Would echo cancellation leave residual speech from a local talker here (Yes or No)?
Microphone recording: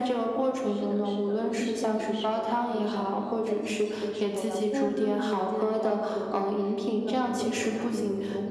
Yes